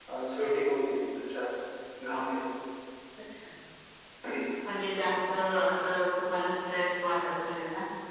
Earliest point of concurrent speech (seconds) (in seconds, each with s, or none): none